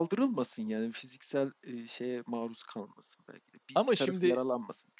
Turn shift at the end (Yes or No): No